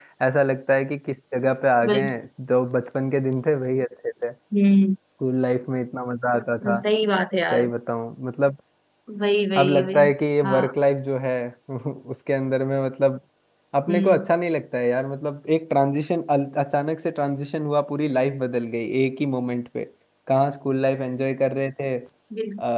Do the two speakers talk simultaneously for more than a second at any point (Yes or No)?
No